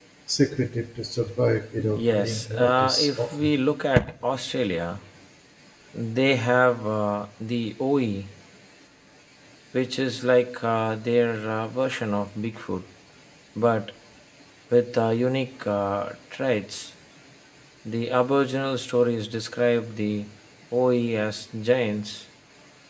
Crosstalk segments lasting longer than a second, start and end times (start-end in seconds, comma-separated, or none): 2.0-3.5